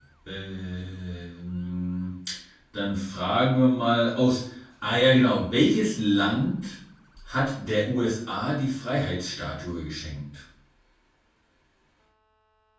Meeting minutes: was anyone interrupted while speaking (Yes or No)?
No